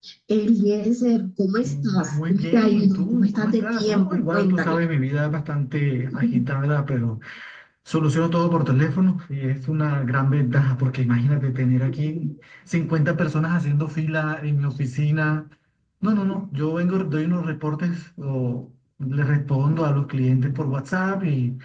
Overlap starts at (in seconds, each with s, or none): 1.6 s